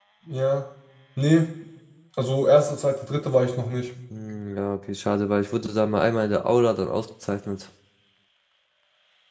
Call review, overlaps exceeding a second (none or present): none